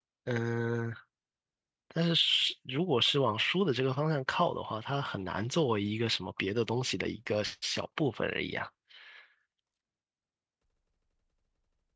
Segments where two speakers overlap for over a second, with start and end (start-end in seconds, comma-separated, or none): none